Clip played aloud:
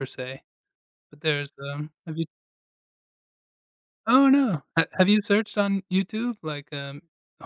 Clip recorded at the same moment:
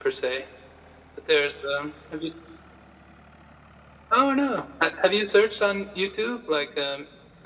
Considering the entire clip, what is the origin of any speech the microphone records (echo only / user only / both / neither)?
echo only